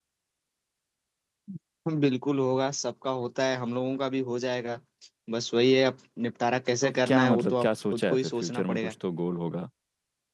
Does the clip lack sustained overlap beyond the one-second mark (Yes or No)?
No